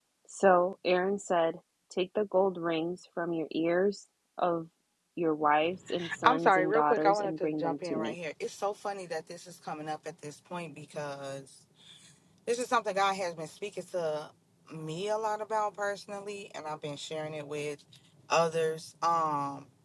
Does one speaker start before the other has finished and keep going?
Yes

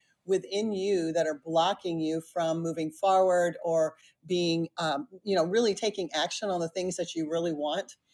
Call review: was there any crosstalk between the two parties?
No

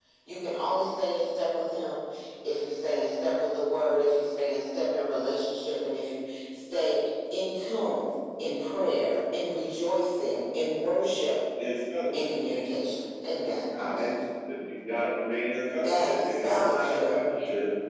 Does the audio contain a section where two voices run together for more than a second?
Yes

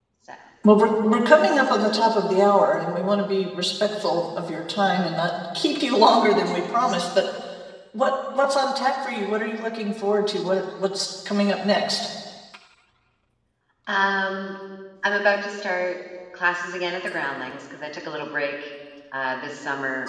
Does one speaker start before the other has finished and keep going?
No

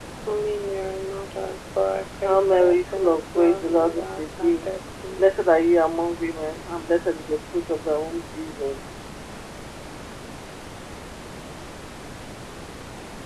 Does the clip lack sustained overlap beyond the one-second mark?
No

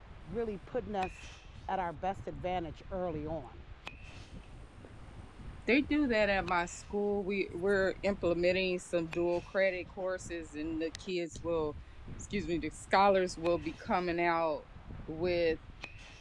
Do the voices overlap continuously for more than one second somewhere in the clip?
No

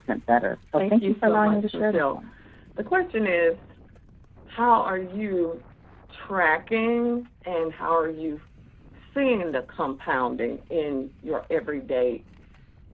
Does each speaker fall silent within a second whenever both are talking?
No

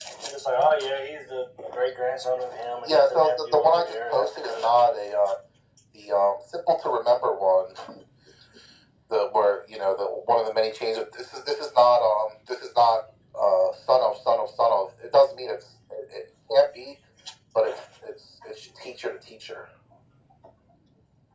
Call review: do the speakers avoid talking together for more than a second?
No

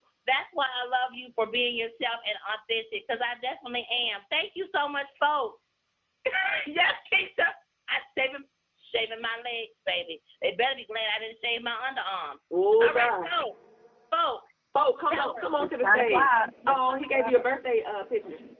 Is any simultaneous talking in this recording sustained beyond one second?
Yes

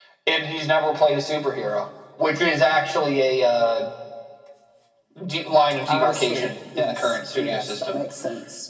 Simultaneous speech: Yes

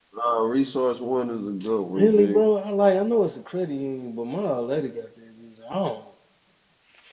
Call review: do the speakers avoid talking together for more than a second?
Yes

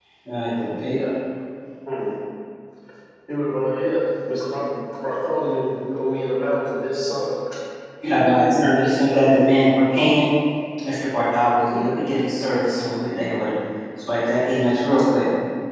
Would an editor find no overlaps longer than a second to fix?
No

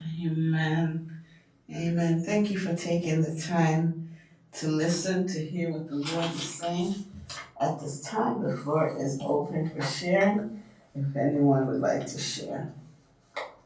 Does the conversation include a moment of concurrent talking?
No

